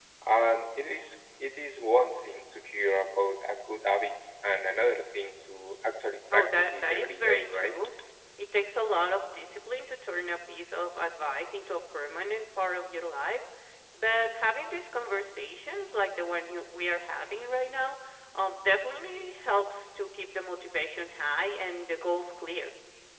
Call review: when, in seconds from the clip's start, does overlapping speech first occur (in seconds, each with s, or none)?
6.3 s